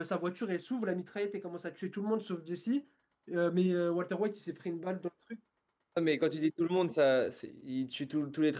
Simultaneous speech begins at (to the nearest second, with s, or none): none